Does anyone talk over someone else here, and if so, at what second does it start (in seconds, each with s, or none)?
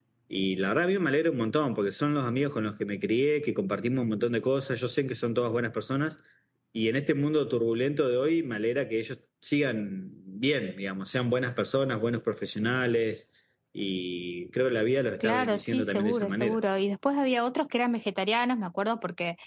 15.2 s